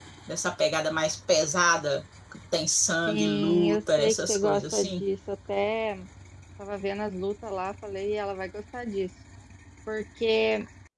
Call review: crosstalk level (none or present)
present